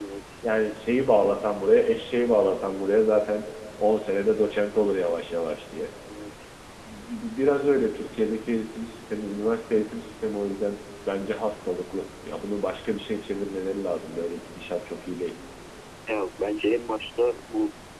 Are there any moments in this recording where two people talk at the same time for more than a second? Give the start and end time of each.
none

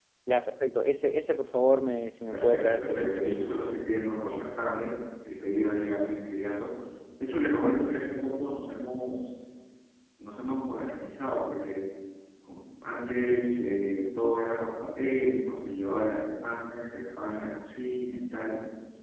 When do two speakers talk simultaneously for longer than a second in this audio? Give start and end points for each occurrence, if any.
2.3-3.6

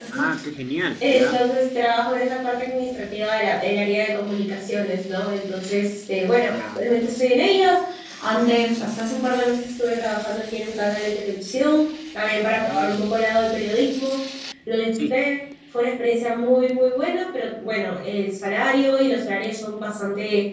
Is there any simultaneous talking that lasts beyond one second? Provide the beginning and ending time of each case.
none

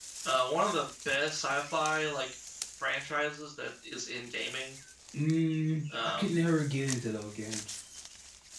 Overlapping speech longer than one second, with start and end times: none

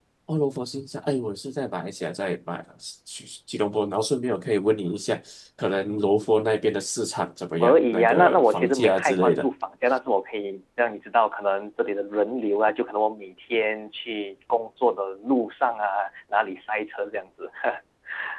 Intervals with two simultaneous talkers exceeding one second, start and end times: 7.6-9.5

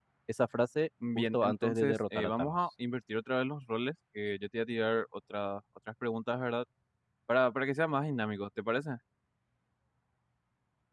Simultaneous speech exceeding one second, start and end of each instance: 1.1-2.5

